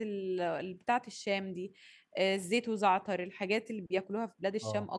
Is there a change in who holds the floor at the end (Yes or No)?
Yes